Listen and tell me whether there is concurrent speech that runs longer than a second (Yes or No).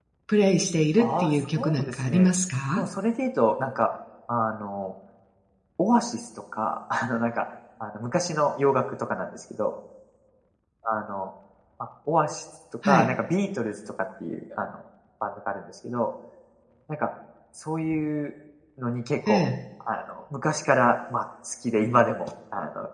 Yes